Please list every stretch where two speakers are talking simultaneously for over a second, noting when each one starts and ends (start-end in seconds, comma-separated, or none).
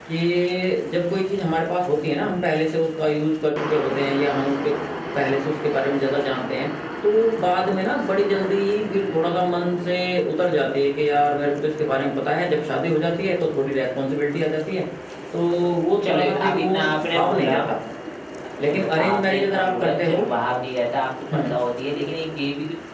16.0-17.6, 18.6-20.2